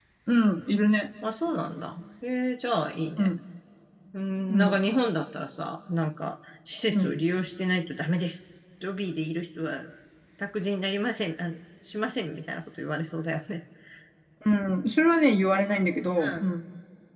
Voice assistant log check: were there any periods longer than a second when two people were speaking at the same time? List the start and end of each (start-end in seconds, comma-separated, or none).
none